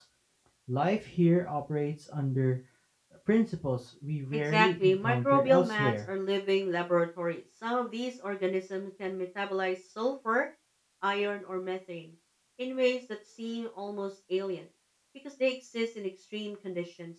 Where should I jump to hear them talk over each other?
4.3 s

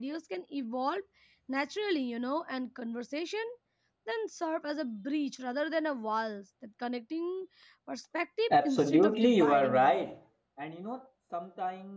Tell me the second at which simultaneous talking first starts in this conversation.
8.5 s

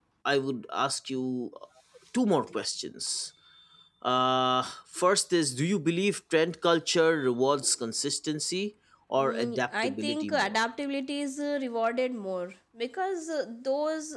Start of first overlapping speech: 9.2 s

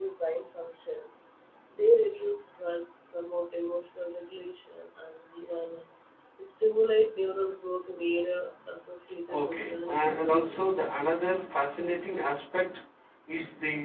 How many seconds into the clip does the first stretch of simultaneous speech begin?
9.3 s

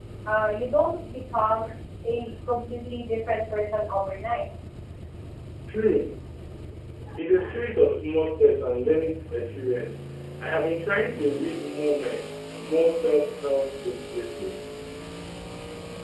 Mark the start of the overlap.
none

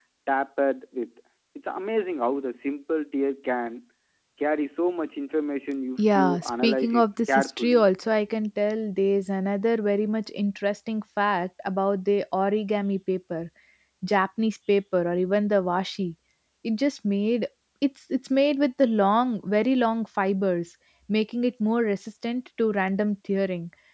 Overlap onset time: 6.0 s

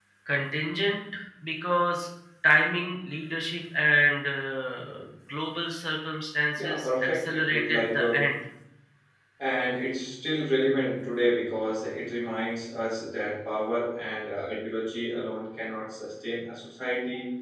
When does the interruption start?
6.6 s

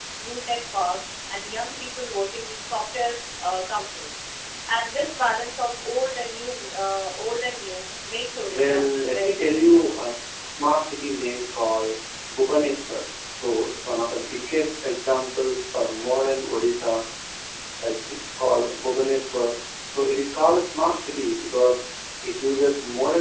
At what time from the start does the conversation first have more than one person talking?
8.5 s

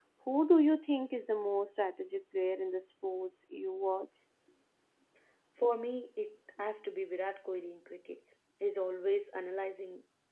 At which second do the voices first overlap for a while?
none

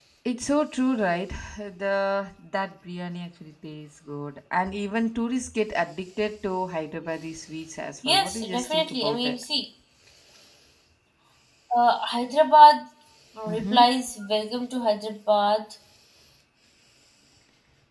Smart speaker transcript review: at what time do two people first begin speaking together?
8.1 s

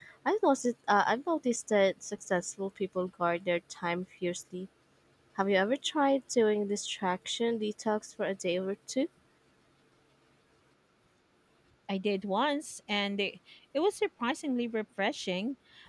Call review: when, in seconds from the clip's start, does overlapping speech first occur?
none

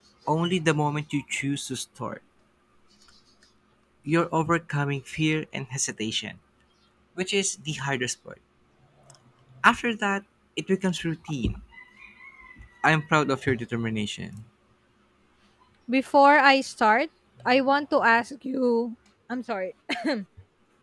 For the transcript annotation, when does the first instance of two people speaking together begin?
none

